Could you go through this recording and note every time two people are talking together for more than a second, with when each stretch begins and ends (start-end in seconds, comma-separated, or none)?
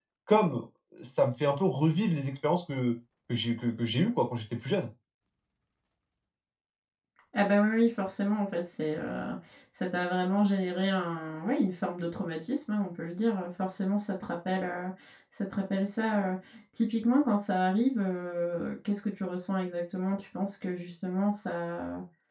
none